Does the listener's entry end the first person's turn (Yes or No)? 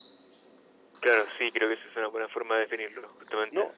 Yes